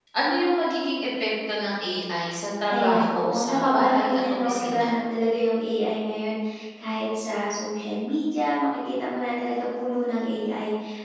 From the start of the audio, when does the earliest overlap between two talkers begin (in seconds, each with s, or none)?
2.7 s